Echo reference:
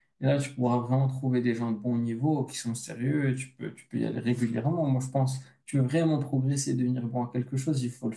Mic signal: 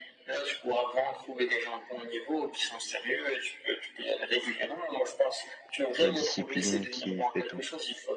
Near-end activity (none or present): present